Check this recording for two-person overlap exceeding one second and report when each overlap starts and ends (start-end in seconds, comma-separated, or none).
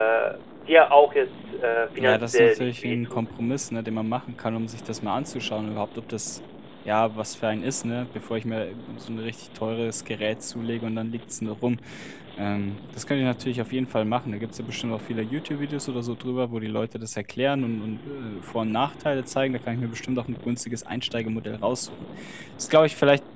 2.0-3.2